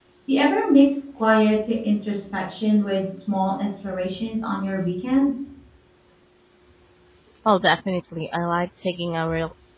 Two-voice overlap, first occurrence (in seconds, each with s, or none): none